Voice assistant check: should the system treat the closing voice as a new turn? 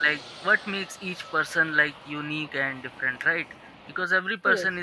No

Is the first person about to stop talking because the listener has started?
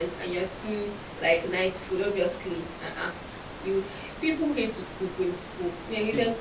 Yes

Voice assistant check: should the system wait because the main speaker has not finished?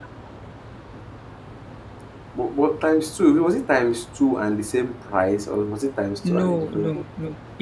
No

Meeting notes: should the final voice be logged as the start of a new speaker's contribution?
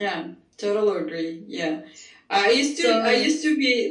No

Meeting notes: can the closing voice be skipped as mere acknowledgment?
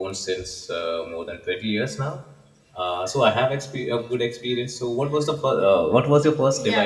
No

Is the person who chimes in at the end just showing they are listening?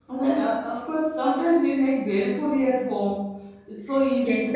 No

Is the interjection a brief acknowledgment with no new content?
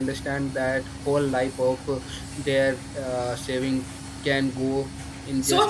No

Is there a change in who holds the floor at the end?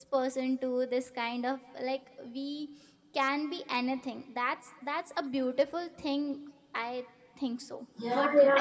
Yes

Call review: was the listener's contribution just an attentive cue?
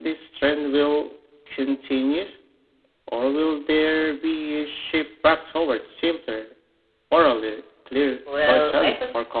No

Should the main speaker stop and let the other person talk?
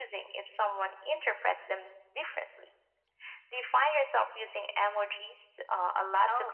Yes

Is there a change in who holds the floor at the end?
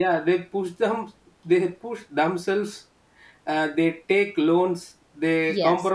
No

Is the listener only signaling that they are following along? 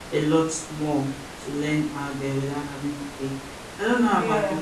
Yes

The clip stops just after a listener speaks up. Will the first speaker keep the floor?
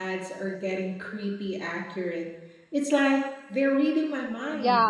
No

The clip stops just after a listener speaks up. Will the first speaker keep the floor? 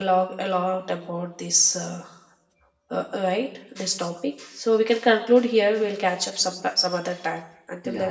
No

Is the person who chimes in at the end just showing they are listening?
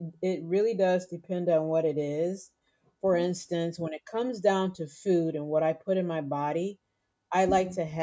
Yes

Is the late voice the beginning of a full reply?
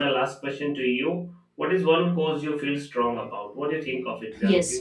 Yes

